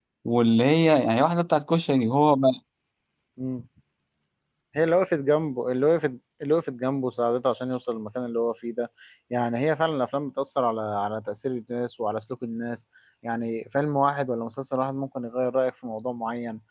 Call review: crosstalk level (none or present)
none